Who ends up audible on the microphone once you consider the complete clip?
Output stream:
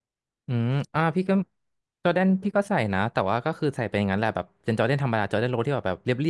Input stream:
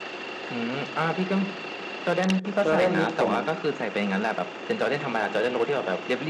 both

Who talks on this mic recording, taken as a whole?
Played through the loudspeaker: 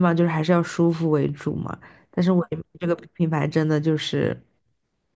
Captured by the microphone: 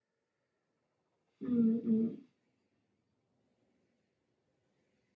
user only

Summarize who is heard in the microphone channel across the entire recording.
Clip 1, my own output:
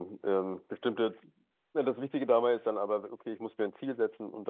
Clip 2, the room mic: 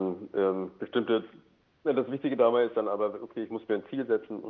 echo only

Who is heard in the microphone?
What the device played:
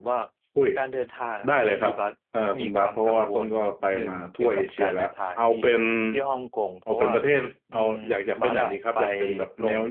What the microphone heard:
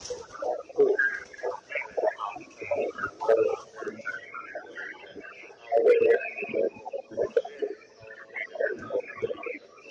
echo only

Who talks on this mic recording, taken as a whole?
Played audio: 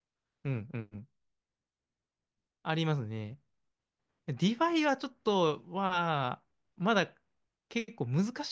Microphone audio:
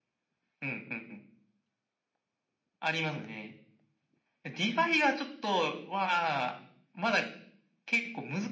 echo only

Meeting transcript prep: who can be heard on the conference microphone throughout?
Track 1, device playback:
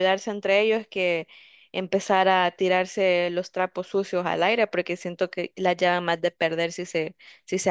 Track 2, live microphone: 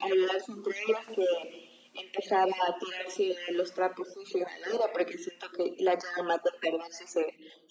echo only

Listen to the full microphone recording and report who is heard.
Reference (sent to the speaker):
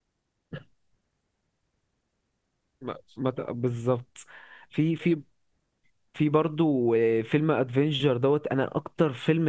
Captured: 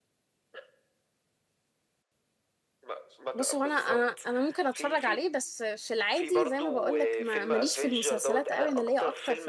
both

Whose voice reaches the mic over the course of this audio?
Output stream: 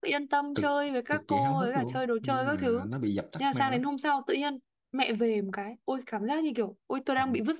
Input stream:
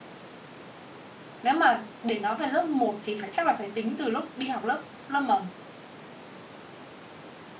user only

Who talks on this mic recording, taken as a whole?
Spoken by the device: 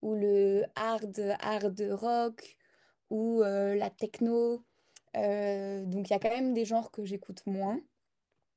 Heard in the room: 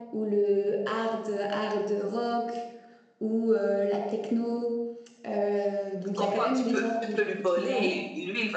both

